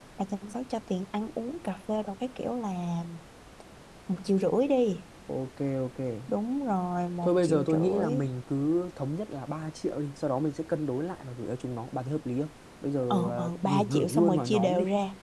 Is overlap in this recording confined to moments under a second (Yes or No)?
No